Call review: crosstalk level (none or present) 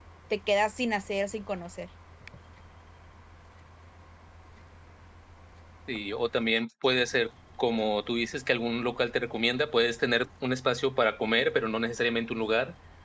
none